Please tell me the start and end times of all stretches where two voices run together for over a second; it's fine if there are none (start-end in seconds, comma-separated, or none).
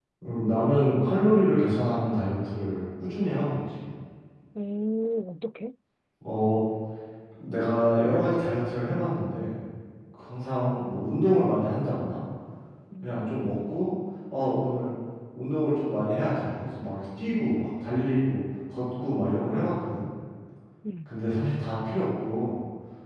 none